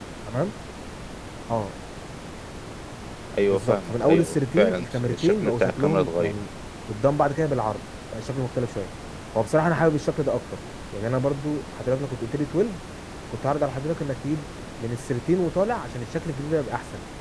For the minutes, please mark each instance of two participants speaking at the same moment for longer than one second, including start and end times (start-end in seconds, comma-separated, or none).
3.5-6.3